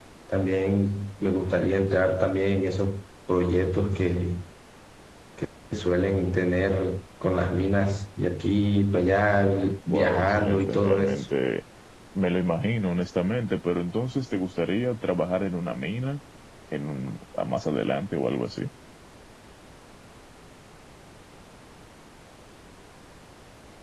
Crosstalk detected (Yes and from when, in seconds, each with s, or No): Yes, from 9.9 s